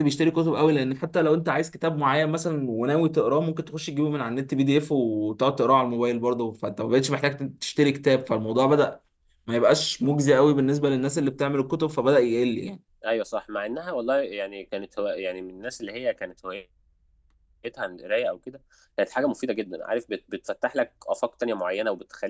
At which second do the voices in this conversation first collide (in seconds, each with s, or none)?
none